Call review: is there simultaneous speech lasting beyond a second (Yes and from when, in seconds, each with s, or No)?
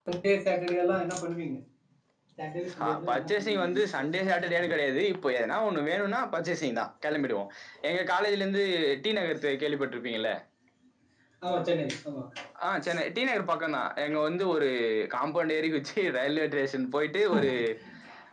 Yes, from 2.7 s